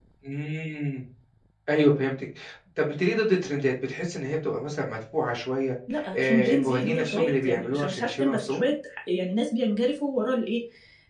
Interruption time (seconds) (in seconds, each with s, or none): 6.2 s